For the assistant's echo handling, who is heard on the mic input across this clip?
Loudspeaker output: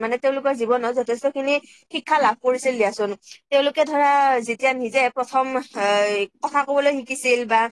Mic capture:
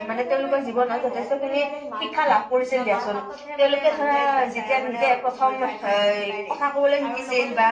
both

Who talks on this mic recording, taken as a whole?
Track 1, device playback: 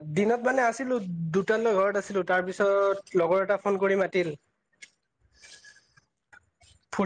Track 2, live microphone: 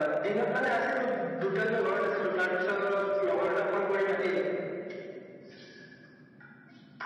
echo only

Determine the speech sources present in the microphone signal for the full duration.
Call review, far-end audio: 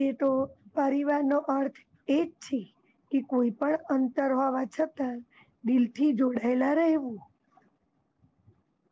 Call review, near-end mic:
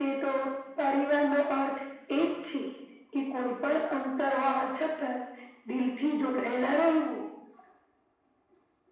echo only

